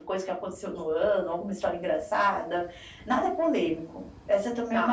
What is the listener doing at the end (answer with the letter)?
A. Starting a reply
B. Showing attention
A